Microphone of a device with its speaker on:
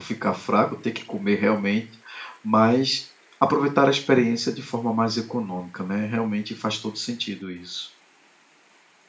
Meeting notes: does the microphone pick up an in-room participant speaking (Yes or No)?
Yes